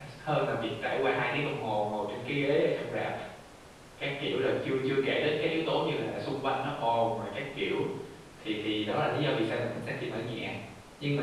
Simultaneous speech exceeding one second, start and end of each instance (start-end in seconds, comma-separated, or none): none